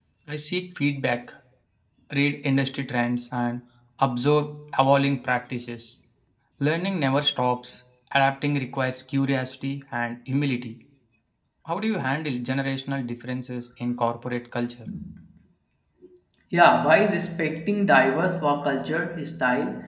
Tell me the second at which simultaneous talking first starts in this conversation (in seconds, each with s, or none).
none